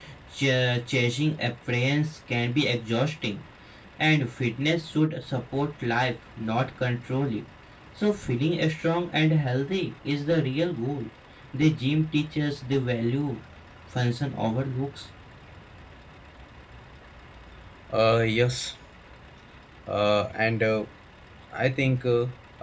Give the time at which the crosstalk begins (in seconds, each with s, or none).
none